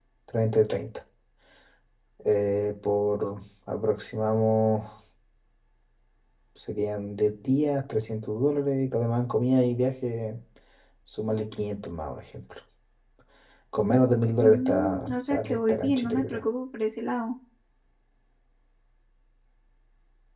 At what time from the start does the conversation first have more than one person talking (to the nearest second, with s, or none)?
14 s